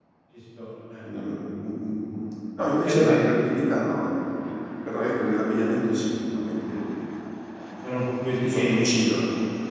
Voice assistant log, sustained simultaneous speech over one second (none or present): none